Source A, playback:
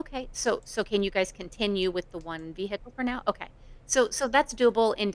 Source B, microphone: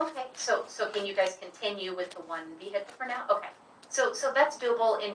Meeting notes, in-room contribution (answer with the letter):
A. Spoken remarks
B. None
B